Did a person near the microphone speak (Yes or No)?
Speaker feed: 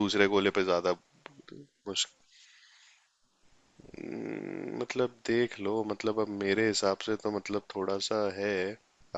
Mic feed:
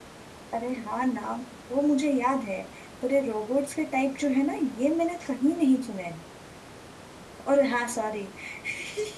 Yes